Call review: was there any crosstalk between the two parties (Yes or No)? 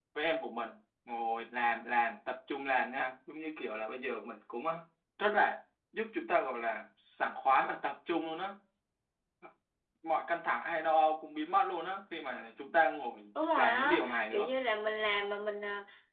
Yes